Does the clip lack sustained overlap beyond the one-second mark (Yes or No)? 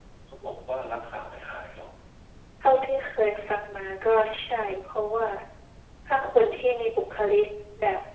Yes